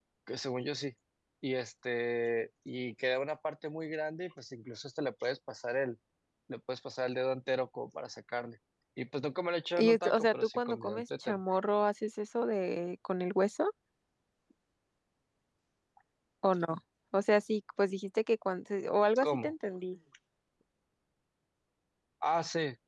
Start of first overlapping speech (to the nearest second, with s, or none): 10 s